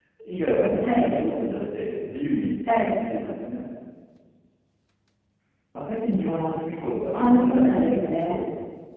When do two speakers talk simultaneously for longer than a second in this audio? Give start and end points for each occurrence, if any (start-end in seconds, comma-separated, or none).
7.1-8.4